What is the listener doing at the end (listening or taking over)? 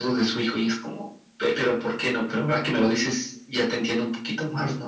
taking over